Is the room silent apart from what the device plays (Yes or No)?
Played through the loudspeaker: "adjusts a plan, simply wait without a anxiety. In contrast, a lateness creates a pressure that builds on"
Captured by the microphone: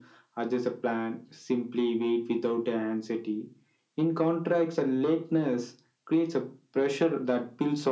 Yes